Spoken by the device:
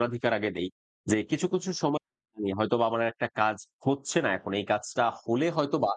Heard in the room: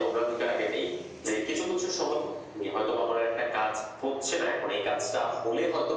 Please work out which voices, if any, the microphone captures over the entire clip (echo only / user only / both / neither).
echo only